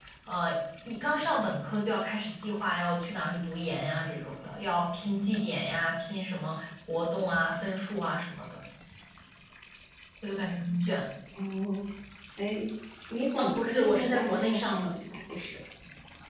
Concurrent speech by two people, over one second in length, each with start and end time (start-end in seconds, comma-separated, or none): 13.4-14.9